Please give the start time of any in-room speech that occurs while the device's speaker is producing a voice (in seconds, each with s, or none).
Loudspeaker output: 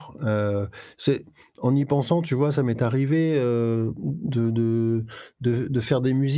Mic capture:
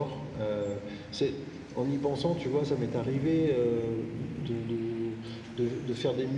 none